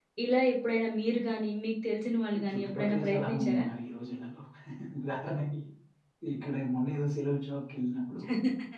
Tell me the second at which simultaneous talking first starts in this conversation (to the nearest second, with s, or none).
2 s